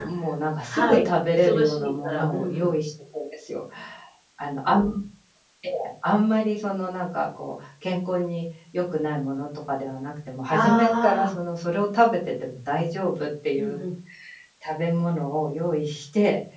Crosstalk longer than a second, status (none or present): present